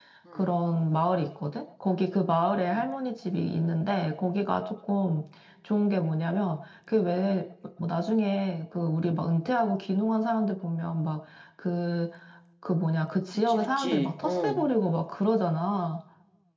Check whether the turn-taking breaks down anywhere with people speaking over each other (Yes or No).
Yes